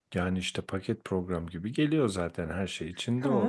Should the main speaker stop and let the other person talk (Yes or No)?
Yes